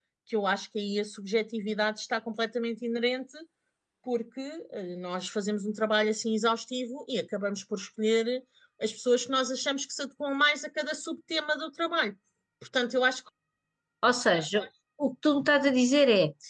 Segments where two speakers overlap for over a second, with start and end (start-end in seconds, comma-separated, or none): none